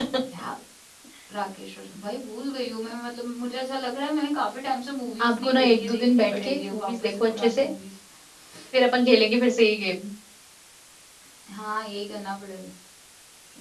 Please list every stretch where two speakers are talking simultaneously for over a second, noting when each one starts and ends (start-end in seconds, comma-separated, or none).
5.2-7.7